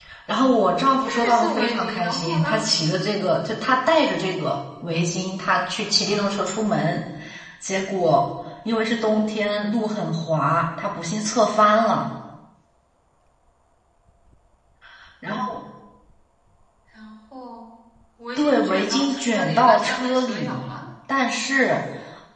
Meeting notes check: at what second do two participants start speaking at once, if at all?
1.0 s

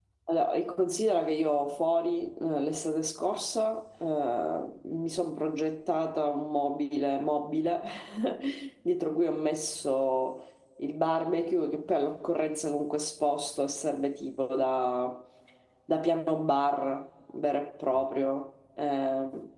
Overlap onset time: none

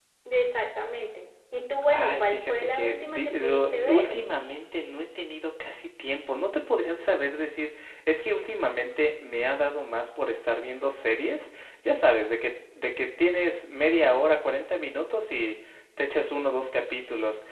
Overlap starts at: 1.9 s

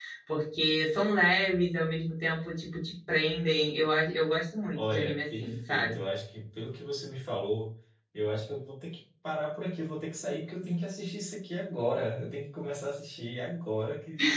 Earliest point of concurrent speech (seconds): 4.8 s

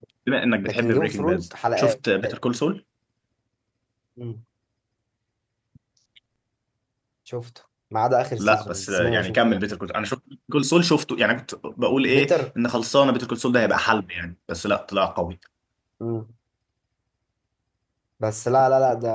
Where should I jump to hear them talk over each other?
0.6 s

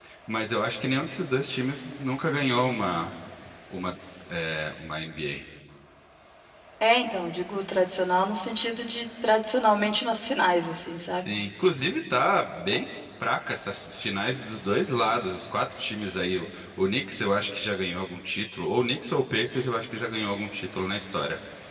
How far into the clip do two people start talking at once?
none

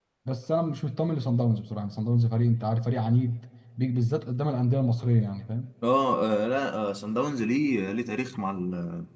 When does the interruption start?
none

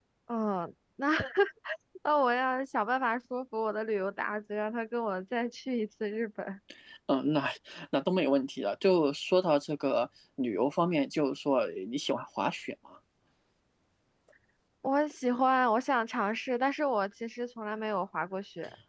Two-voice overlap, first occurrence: none

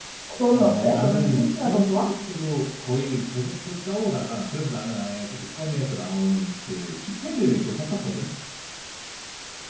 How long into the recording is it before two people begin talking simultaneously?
0.5 s

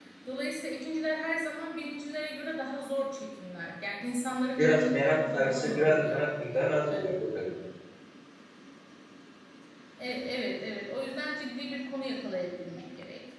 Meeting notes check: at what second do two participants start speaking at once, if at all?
4.6 s

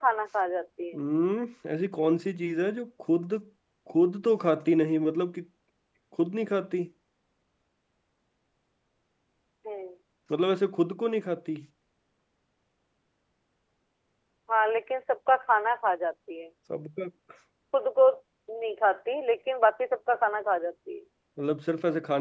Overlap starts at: none

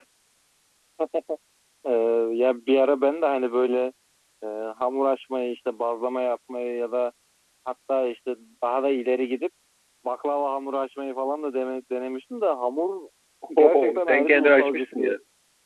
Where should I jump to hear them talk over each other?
13.6 s

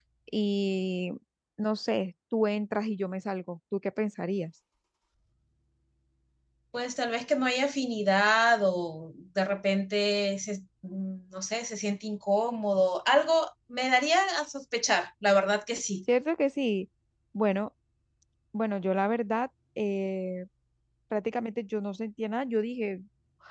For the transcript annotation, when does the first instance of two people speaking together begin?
none

